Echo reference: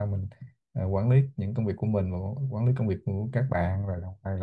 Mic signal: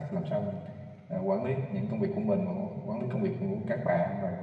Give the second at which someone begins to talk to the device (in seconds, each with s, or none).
none